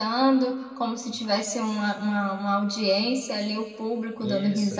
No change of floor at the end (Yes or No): Yes